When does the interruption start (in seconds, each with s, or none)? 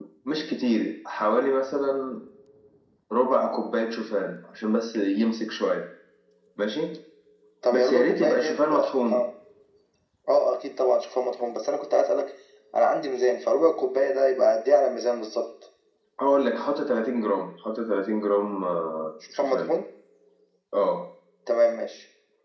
7.7 s